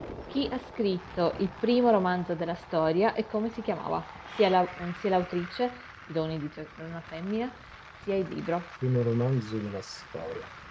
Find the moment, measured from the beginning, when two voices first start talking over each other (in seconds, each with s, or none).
none